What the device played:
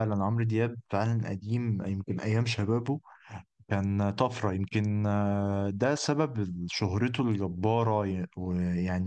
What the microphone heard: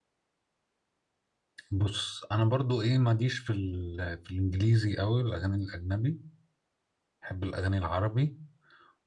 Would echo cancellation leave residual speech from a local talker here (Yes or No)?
Yes